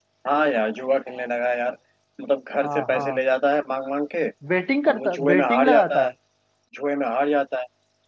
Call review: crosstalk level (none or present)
present